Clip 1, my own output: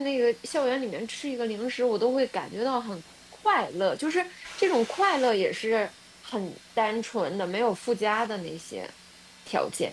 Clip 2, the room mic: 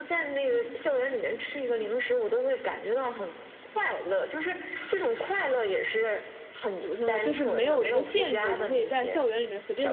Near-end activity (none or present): present